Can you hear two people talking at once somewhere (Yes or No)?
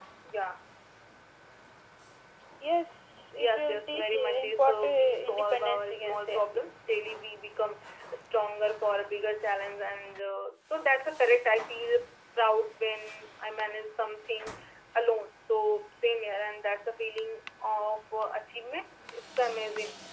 Yes